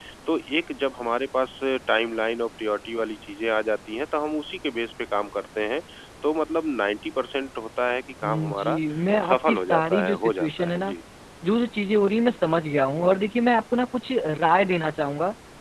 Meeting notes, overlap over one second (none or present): present